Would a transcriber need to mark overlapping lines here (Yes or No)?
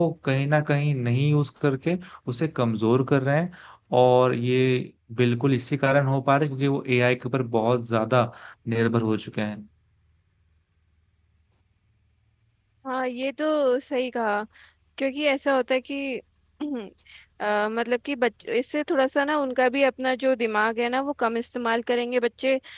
No